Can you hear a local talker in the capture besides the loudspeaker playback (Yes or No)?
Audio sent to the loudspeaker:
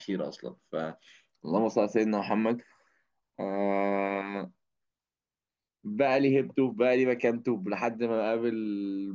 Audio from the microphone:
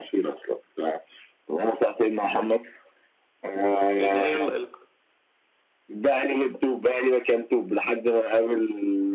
Yes